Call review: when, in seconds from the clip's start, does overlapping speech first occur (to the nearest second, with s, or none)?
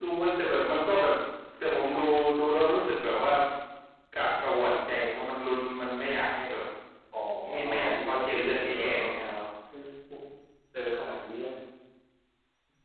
8 s